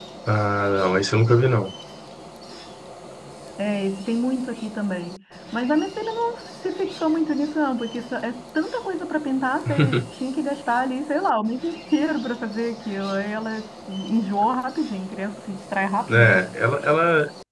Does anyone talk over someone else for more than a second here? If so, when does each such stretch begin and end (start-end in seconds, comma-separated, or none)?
none